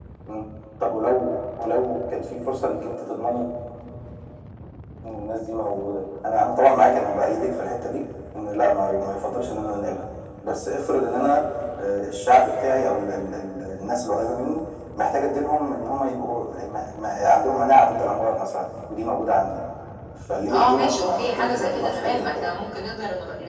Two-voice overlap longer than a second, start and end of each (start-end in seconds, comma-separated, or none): 20.5-22.5